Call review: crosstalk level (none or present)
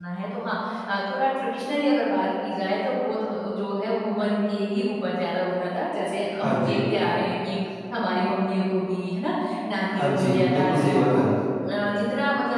present